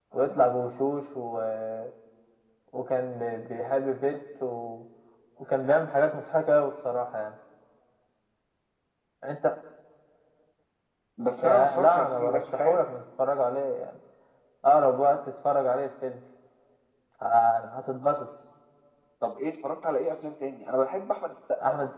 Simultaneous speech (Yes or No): Yes